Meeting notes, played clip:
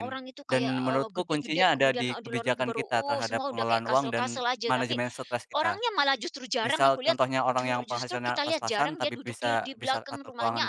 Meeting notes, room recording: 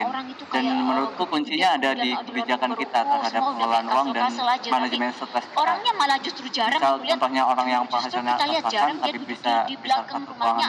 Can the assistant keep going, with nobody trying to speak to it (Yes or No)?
Yes